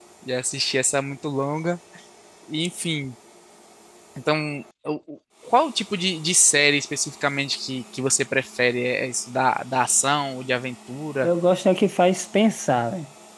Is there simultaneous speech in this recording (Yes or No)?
No